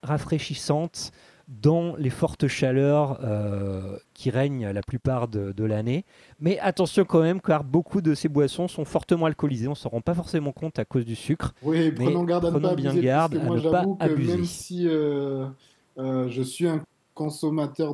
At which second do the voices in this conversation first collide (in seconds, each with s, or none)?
11.9 s